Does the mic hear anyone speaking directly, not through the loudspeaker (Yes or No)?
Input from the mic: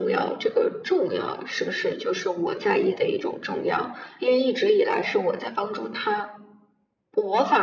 No